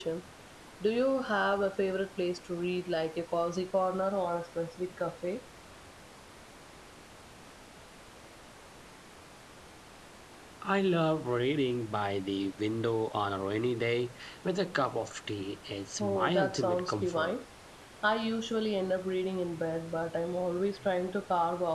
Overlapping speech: Yes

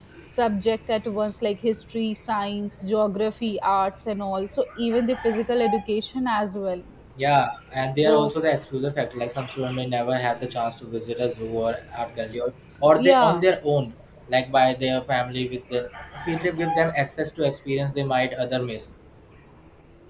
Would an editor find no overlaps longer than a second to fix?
Yes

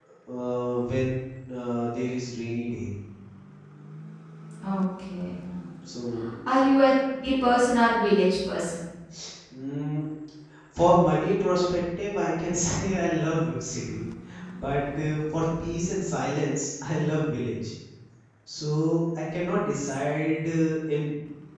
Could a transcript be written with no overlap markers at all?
Yes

